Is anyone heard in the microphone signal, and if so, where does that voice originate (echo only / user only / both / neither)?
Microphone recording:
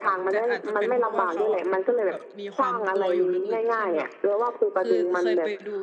both